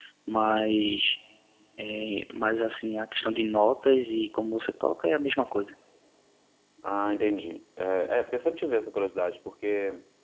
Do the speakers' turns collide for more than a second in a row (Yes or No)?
No